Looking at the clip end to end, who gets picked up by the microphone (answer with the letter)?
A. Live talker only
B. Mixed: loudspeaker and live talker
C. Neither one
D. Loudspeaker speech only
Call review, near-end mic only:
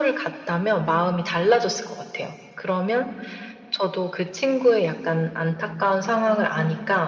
D